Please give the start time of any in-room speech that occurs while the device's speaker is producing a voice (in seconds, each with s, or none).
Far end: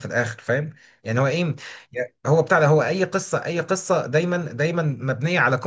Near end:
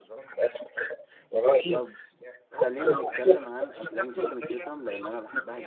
1.7 s